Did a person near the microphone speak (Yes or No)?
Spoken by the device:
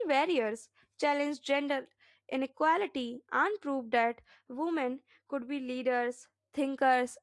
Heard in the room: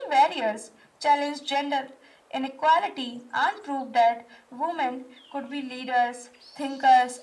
No